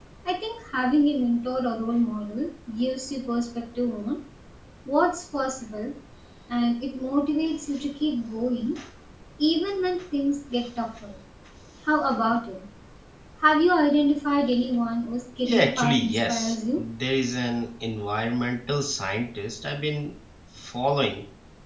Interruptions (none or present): present